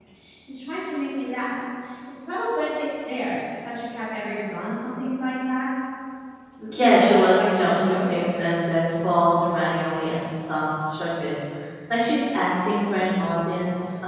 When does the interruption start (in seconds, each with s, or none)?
6.8 s